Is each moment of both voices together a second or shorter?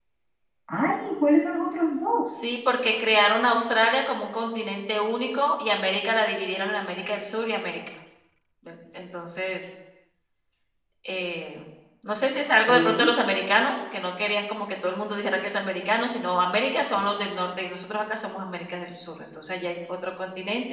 Yes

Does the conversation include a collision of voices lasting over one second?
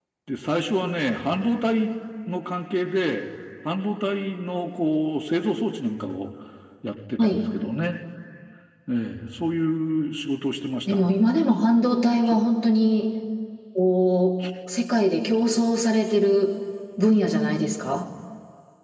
No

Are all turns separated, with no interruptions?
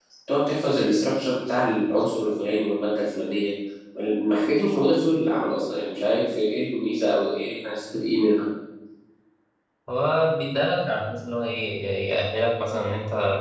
Yes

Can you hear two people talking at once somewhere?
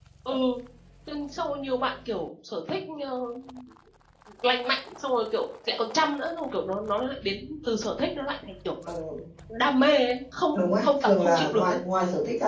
Yes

